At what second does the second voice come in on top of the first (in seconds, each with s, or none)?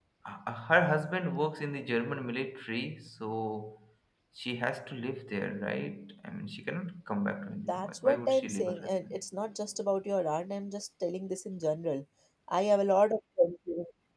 7.7 s